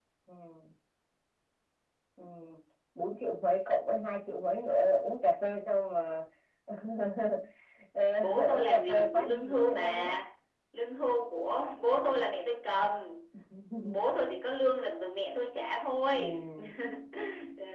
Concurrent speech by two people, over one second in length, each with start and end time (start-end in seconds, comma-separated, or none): 8.2-10.2